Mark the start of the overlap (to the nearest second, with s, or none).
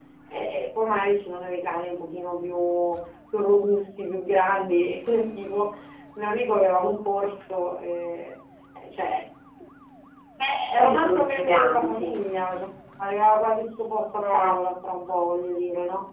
11 s